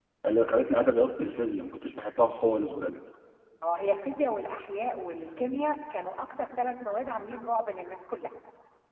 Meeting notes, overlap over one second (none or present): none